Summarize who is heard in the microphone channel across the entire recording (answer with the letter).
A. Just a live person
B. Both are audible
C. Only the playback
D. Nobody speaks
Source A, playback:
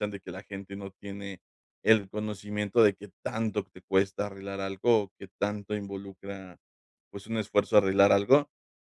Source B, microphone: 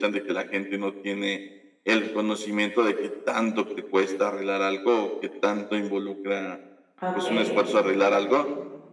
B